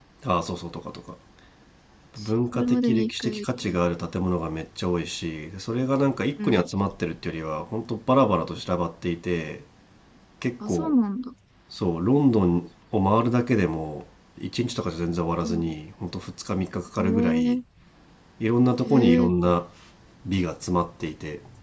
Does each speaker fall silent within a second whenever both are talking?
No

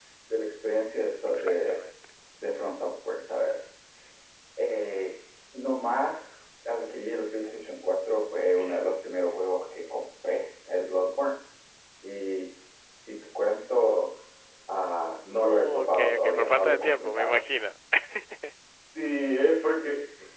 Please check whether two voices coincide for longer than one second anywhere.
Yes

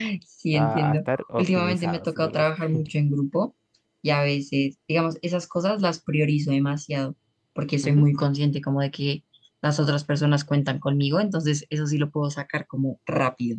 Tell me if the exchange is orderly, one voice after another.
No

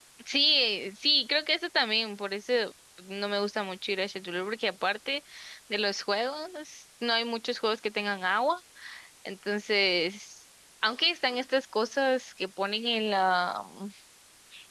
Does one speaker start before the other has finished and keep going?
No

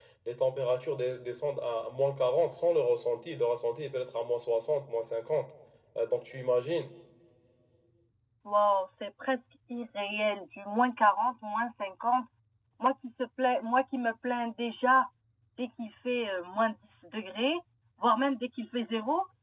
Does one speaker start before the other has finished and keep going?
No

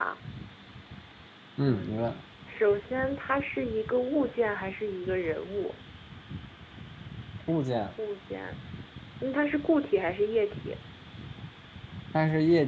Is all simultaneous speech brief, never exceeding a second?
Yes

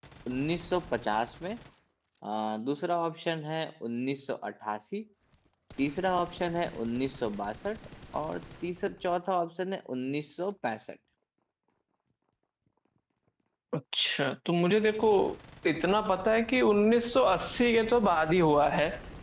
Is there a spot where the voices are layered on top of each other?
No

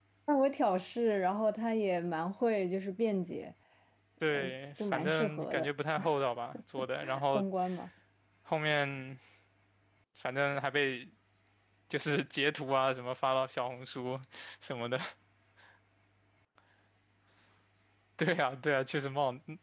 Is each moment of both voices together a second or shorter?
No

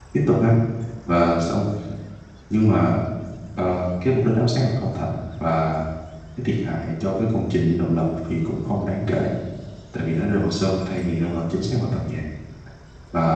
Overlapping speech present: No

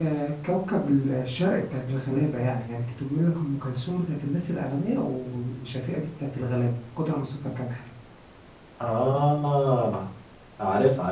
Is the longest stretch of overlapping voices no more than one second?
Yes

